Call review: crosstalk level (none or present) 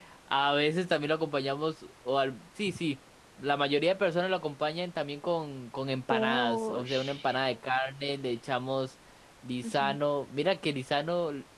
present